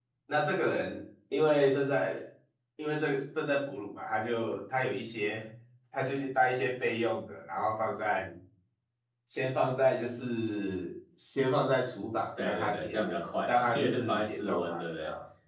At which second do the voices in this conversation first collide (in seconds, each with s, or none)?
12.4 s